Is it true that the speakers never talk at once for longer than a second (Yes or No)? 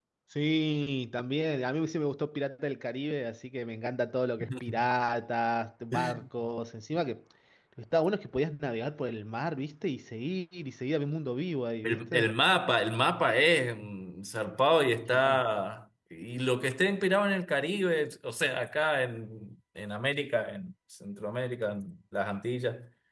Yes